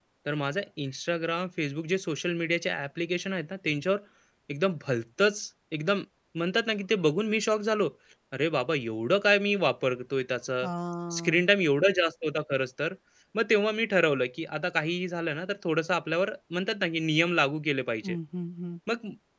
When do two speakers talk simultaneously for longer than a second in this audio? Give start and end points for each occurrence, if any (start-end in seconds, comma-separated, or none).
none